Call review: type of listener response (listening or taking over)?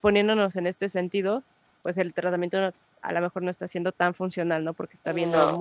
listening